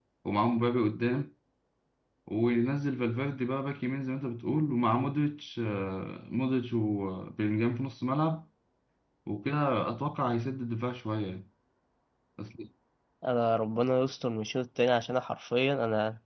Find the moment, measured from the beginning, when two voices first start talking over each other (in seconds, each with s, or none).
none